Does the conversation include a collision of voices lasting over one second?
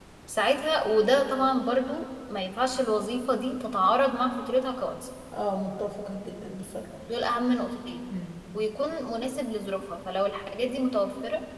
No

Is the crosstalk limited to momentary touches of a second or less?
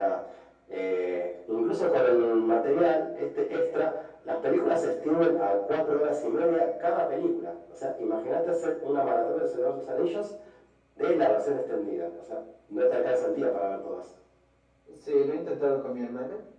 Yes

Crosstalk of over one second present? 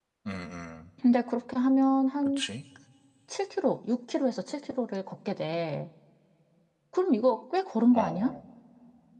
No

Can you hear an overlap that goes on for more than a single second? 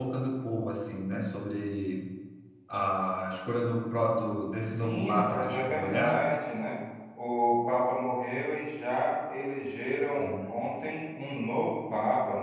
Yes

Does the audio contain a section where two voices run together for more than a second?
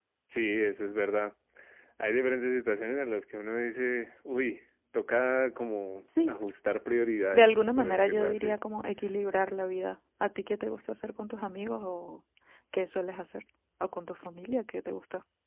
Yes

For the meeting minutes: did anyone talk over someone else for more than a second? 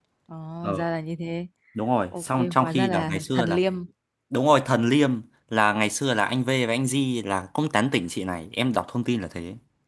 Yes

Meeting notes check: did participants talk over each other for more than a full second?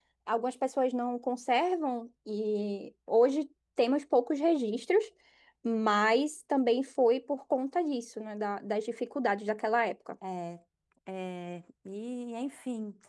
No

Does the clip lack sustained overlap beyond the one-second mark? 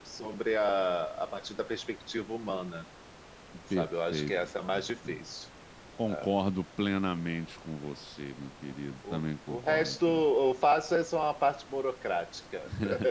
No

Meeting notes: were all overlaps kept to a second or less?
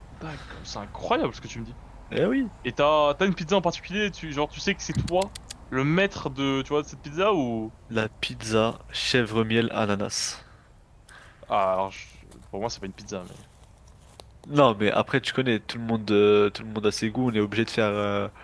Yes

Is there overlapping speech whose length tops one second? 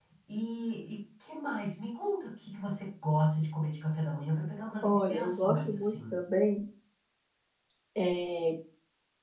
Yes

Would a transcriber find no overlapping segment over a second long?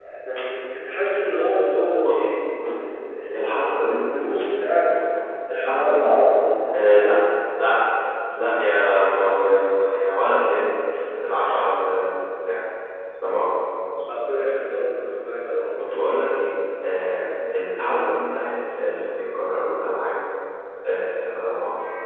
Yes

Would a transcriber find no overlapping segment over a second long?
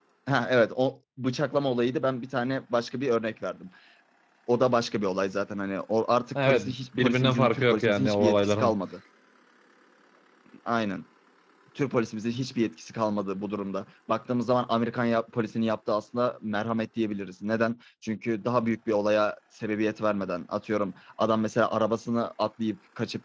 No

